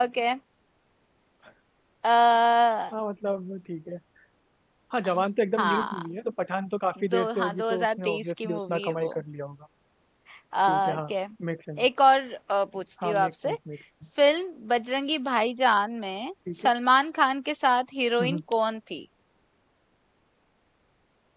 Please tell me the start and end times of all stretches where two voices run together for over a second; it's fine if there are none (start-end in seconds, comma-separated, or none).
7.1-9.1